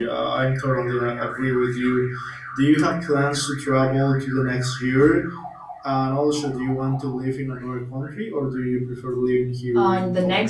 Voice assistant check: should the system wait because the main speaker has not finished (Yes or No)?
No